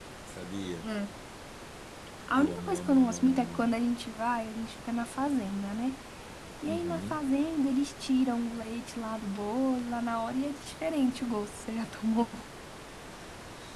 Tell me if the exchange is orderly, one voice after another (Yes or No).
No